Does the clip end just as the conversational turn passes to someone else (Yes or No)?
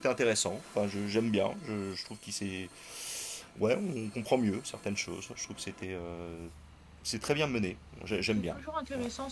Yes